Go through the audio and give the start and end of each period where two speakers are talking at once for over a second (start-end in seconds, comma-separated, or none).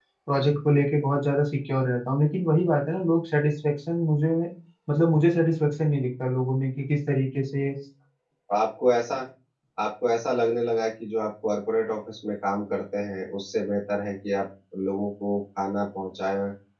none